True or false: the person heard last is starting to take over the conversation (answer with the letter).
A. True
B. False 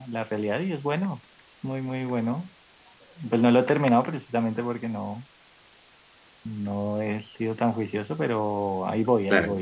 B